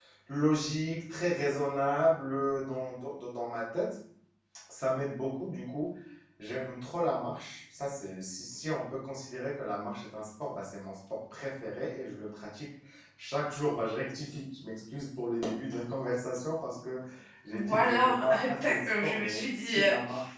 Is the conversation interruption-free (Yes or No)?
No